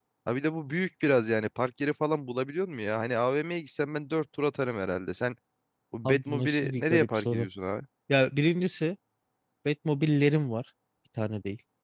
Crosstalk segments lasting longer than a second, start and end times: 6.0-7.5

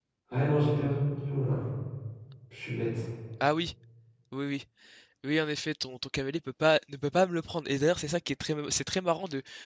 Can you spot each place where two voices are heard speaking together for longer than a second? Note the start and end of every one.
none

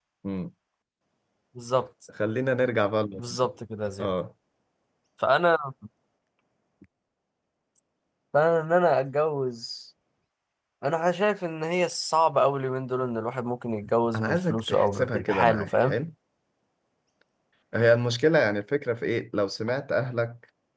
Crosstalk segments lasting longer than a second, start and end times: 14.2-15.9

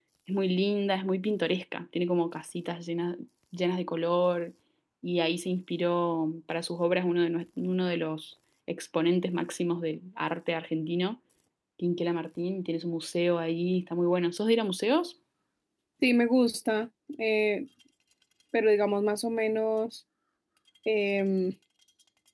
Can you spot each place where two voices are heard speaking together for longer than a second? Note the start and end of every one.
none

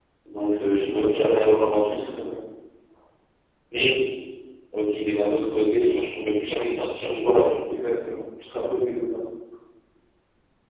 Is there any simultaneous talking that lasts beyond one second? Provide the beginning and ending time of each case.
0.6-1.9

